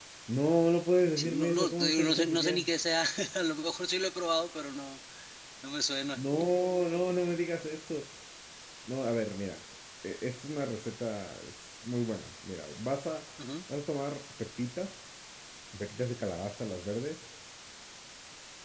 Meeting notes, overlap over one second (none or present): present